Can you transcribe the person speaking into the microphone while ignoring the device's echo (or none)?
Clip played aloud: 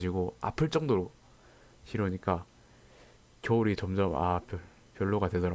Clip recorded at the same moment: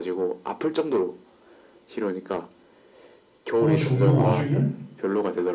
더워 죽는 와중에